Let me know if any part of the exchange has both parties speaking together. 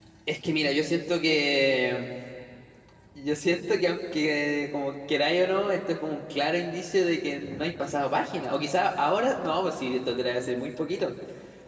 No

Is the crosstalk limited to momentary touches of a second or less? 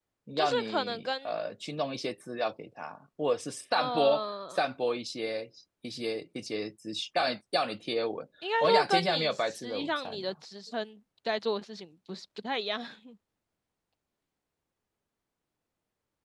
No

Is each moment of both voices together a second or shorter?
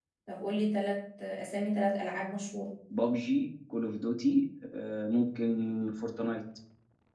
Yes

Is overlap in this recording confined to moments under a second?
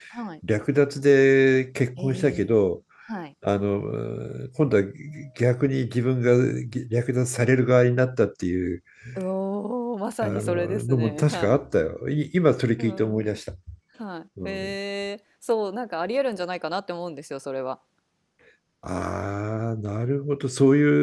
No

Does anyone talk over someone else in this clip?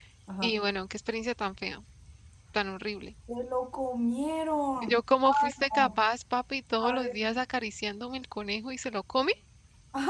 Yes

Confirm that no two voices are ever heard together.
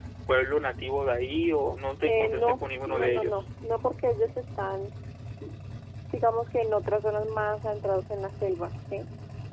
No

